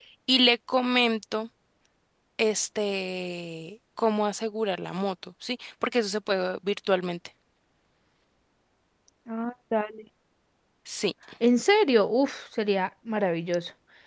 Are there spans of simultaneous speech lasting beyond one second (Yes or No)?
No